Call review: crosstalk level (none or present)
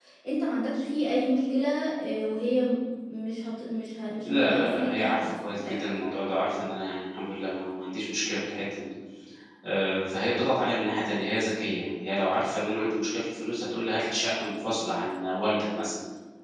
present